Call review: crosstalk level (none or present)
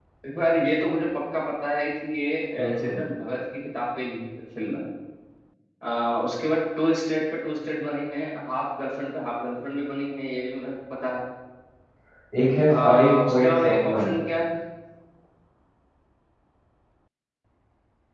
present